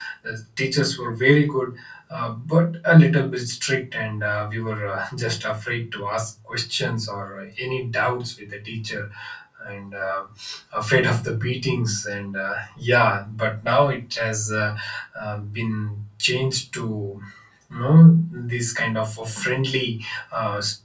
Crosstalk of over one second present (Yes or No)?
No